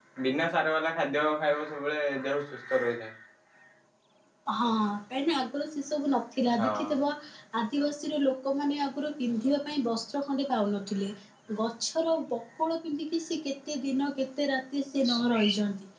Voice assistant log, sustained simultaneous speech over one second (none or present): none